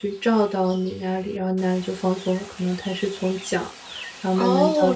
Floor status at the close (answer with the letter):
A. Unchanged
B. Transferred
B